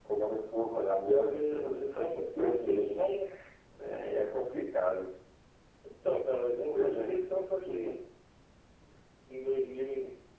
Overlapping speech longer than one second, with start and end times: 1.3-3.0

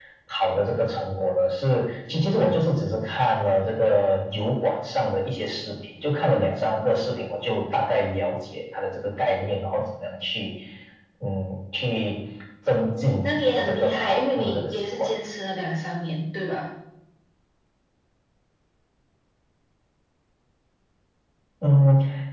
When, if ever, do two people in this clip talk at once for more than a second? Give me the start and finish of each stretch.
12.7-15.1

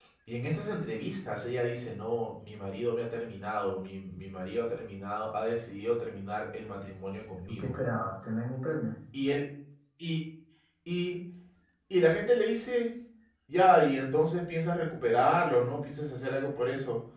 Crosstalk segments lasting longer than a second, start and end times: none

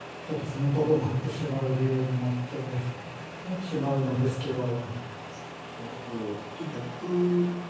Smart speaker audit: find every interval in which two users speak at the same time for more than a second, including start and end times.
none

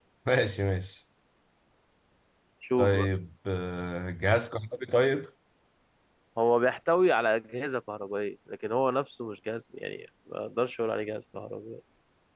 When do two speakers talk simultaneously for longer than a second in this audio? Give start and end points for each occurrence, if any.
none

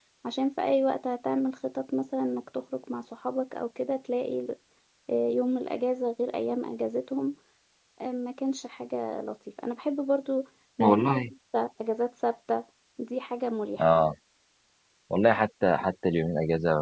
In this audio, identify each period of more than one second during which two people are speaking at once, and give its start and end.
none

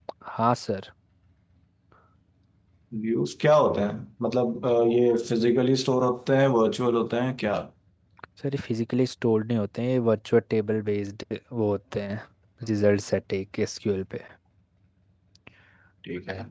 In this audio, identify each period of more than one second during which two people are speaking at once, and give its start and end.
none

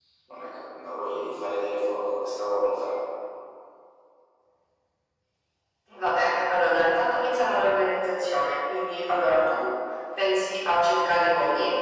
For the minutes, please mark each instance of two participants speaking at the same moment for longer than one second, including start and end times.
none

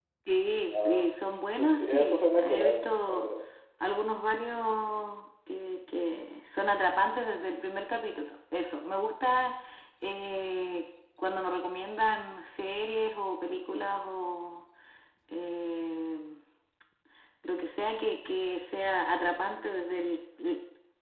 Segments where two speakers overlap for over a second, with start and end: 1.6-3.3

